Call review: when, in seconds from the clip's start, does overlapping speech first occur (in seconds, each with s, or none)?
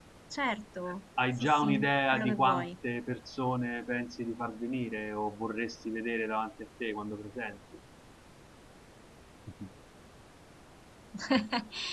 1.2 s